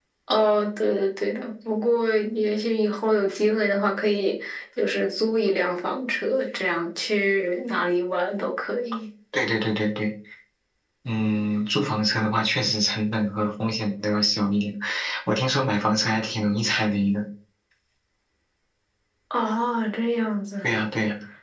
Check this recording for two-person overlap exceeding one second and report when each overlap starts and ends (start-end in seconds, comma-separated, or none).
none